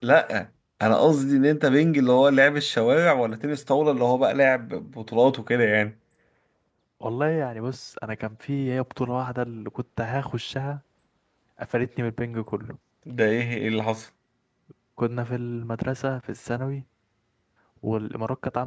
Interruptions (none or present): none